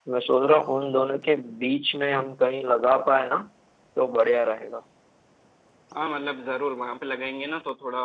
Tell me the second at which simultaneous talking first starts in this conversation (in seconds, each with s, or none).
none